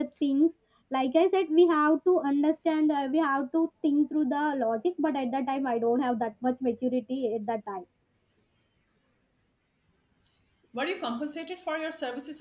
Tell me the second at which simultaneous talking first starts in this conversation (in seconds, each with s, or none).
none